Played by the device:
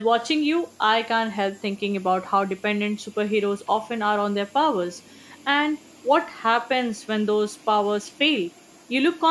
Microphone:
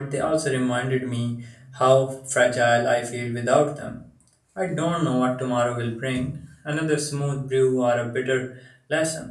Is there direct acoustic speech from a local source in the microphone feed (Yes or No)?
Yes